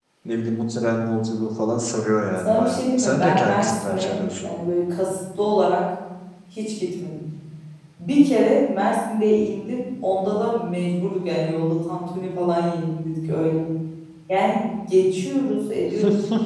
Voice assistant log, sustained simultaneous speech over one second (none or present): present